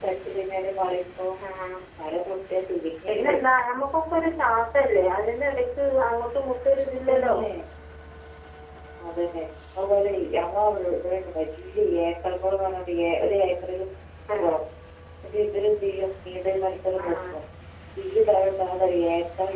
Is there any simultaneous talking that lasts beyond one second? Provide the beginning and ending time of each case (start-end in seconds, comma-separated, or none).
none